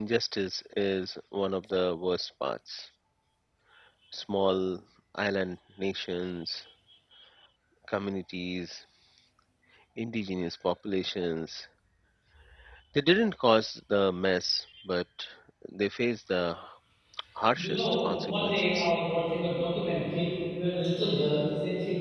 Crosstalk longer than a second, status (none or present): present